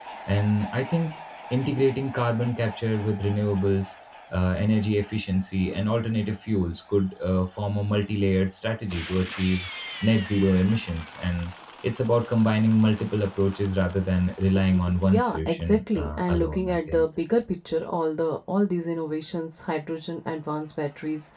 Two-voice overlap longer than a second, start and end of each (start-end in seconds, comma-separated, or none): 15.0-17.0